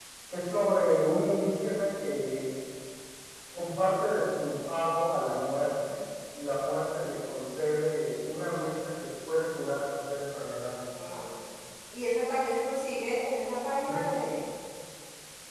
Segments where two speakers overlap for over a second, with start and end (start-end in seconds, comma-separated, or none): none